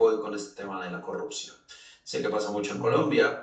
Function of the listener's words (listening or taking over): listening